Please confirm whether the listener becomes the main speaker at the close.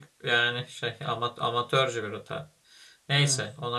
No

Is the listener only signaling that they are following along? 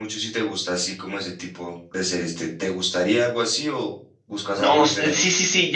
No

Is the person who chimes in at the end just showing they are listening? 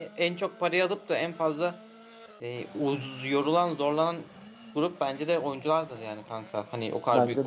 Yes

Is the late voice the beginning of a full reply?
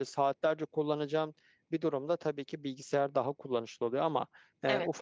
No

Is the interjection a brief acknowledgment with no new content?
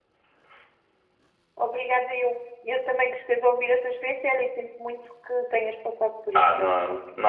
No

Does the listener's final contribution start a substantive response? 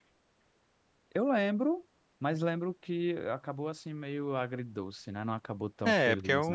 Yes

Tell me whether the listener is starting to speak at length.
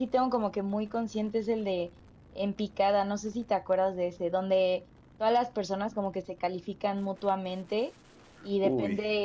No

